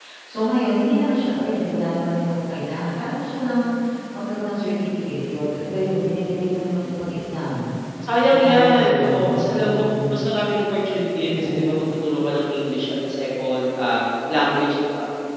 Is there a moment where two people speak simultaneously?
Yes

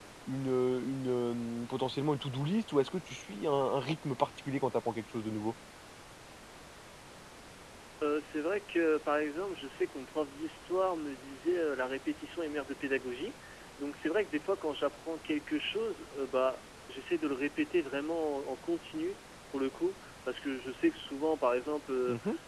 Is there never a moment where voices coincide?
Yes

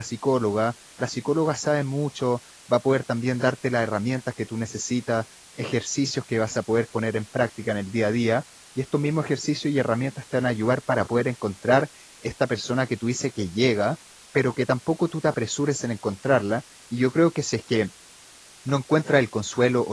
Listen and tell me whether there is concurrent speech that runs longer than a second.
No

